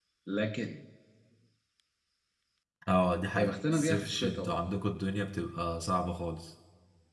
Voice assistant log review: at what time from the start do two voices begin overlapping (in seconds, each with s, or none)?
3.4 s